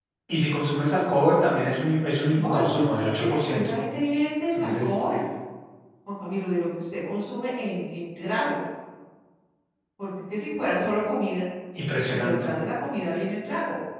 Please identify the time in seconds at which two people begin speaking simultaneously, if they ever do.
2.3 s

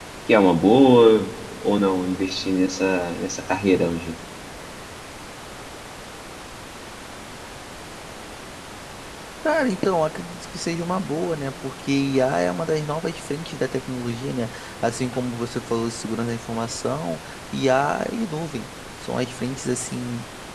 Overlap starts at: none

